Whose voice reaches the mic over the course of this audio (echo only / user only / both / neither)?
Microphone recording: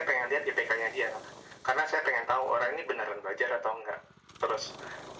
echo only